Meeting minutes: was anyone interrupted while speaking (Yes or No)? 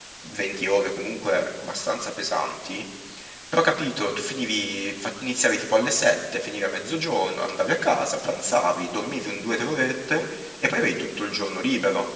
No